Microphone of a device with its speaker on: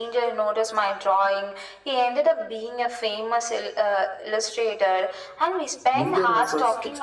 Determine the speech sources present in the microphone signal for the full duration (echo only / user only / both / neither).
both